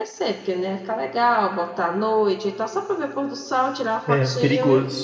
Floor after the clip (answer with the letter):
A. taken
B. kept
A